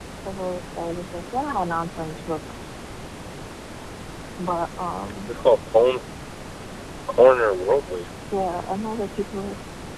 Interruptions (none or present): none